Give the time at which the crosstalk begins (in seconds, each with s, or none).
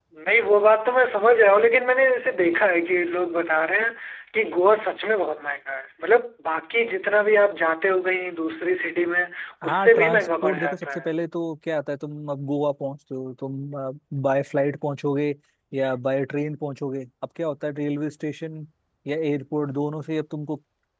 9.6 s